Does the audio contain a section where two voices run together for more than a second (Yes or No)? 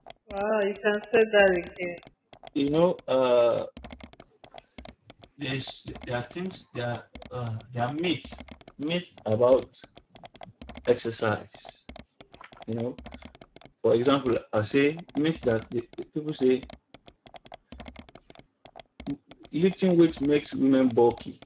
No